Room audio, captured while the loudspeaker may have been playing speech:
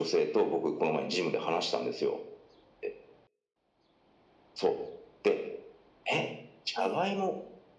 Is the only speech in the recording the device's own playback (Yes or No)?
No